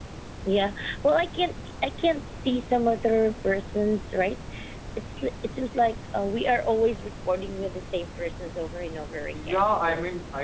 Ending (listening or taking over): taking over